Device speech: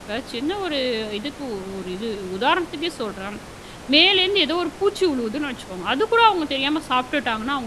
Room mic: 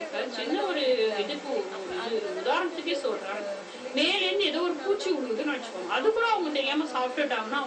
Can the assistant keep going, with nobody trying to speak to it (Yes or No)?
No